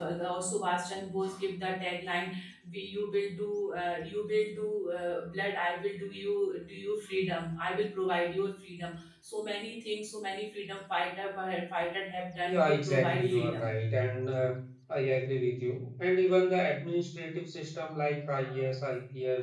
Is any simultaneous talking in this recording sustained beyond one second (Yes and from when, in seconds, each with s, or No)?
Yes, from 12.5 s